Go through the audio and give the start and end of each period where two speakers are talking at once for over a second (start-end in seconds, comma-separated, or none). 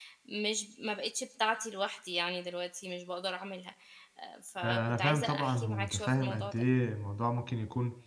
4.6-6.6